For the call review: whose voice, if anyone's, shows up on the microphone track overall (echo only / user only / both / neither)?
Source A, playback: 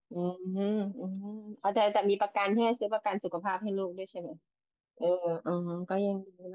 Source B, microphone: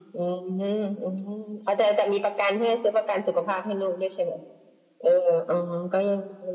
echo only